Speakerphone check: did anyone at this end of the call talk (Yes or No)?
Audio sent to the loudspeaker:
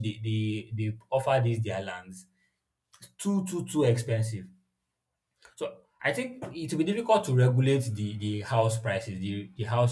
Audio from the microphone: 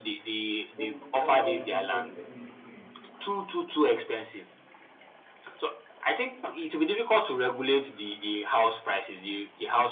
Yes